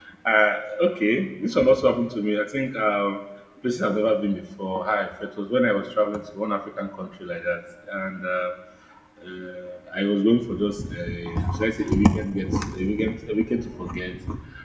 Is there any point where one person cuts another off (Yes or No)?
No